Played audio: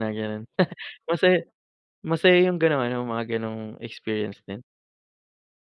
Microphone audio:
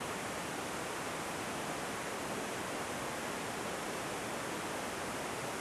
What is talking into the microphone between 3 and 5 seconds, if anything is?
neither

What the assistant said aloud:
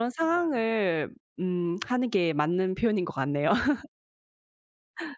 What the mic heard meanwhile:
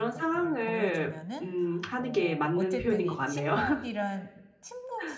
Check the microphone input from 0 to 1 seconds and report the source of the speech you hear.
both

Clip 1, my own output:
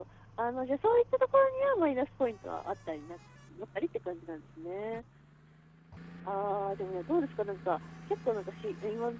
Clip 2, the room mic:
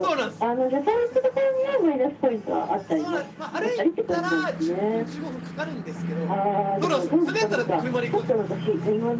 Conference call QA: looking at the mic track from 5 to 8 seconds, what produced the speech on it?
both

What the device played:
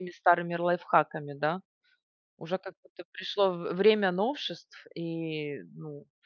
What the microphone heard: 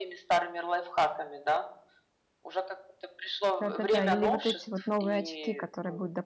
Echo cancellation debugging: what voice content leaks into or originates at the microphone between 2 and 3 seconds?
echo only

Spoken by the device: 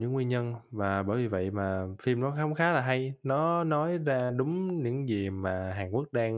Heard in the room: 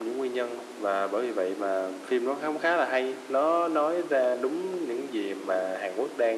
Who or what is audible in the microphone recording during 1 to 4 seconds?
echo only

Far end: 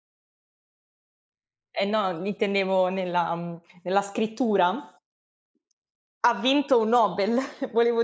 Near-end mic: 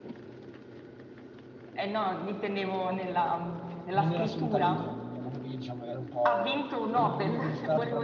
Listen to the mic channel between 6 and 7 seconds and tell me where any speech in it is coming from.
both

